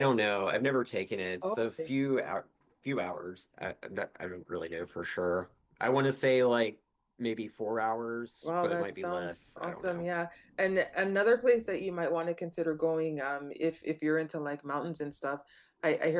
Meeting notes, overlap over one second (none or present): present